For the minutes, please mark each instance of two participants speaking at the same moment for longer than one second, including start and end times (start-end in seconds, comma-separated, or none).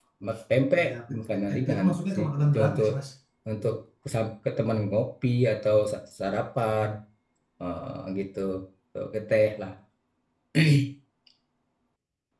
0.8-2.9